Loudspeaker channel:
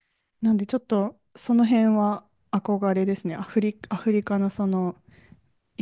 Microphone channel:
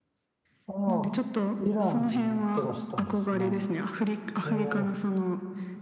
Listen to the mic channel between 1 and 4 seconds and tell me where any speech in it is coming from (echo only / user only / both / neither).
both